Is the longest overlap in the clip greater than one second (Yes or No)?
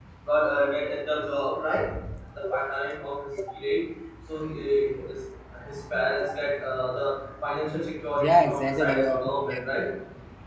Yes